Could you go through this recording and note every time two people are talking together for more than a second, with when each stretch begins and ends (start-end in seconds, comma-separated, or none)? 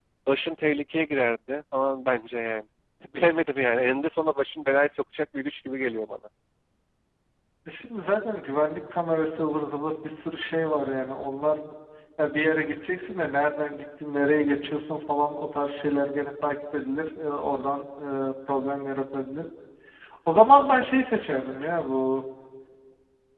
none